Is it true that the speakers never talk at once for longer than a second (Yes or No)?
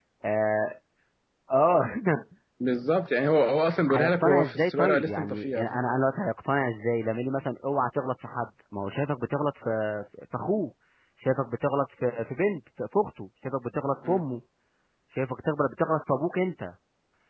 No